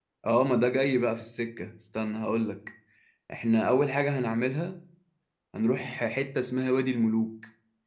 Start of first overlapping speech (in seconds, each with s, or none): none